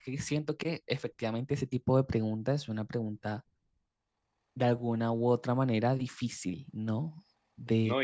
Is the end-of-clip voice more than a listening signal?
Yes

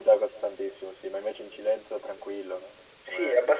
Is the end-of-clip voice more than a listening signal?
Yes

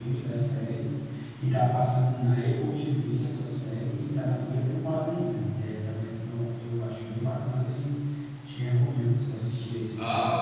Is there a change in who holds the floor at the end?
Yes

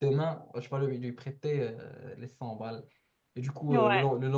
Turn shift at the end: No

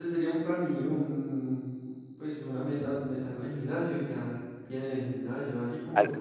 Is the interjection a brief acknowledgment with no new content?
Yes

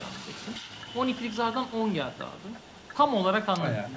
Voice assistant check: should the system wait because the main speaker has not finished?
Yes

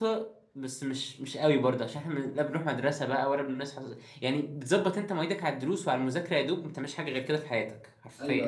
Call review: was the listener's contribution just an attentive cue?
No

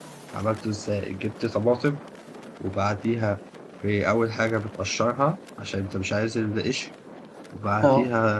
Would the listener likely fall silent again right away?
Yes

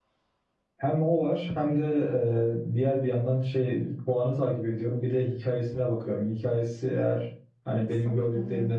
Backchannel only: Yes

